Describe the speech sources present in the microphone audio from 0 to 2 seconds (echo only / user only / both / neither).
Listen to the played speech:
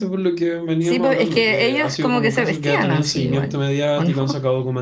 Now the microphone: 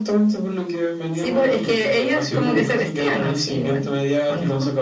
echo only